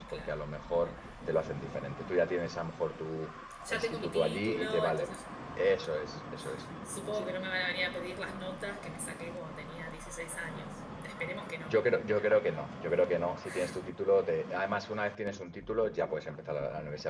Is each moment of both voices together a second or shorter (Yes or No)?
No